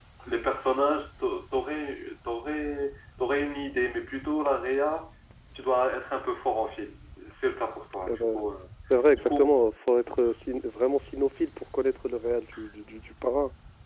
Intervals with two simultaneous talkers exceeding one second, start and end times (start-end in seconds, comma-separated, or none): none